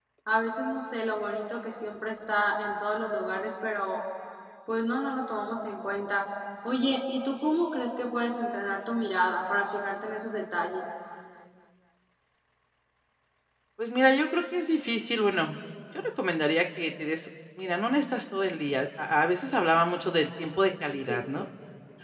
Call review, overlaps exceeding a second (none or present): none